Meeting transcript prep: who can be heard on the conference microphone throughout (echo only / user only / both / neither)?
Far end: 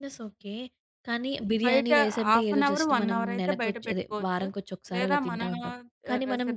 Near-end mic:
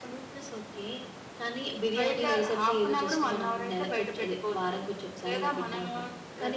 echo only